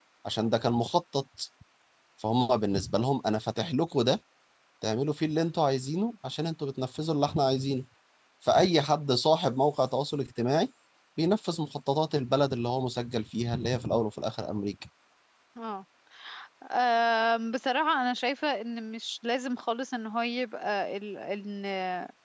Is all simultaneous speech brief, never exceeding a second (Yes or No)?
Yes